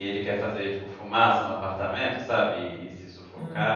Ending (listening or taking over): listening